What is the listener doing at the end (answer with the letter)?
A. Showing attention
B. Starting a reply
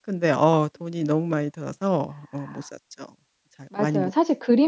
B